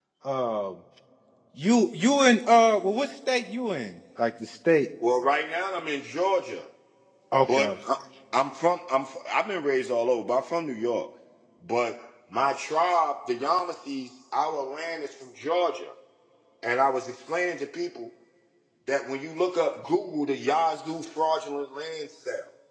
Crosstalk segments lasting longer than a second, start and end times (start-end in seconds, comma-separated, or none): none